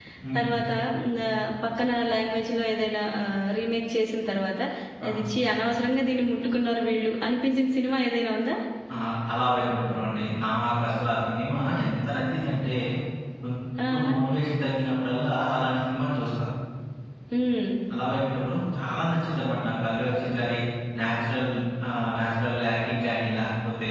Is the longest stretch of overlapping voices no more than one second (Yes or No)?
Yes